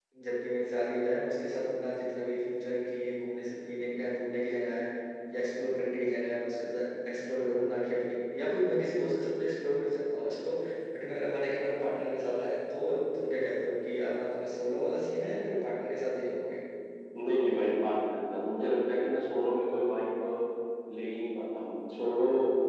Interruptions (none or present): none